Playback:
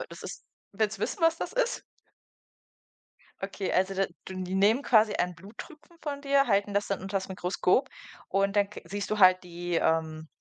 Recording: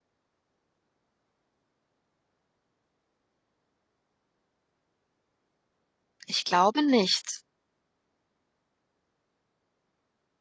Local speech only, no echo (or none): Ich glaube nicht,